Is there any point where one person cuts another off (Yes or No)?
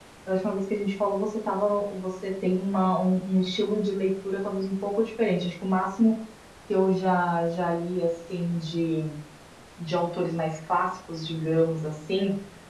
No